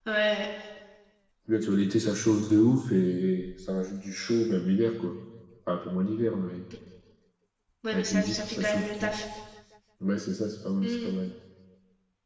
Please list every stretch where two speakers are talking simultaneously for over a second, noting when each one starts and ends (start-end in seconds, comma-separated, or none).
7.9-9.2